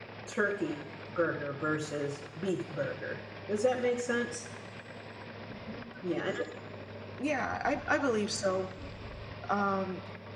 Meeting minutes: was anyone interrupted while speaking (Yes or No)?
No